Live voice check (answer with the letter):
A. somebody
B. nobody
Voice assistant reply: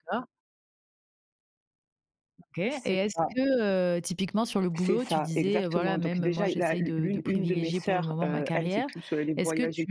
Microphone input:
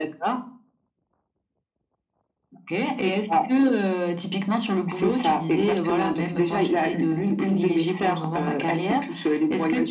B